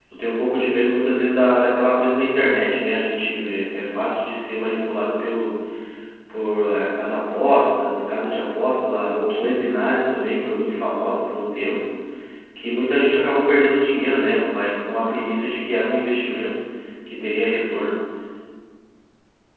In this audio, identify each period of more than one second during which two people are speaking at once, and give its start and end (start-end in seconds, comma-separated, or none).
none